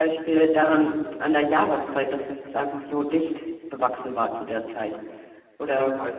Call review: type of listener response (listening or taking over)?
taking over